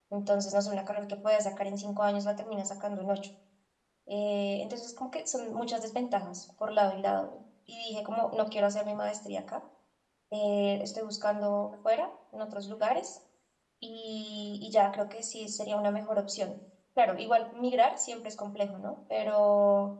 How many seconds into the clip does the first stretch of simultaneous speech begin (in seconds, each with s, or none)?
none